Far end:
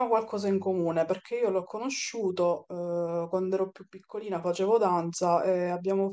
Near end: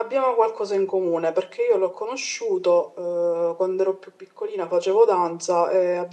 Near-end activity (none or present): none